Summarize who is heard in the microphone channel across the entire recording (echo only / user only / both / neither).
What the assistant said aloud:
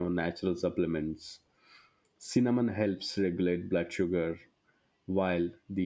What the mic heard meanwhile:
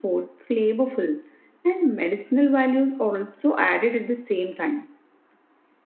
user only